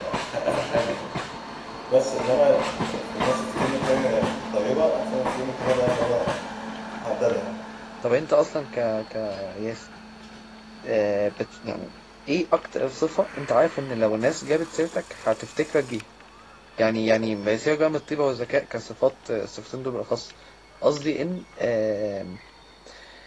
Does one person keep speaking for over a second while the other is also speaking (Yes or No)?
No